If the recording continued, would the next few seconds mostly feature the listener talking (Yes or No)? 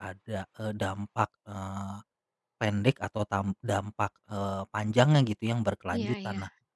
No